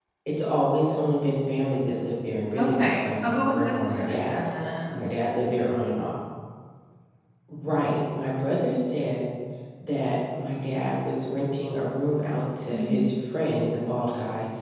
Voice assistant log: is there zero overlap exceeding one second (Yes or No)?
No